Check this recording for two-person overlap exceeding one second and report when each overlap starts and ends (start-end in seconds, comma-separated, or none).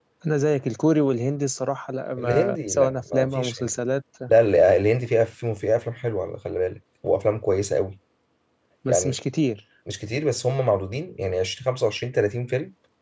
2.2-3.7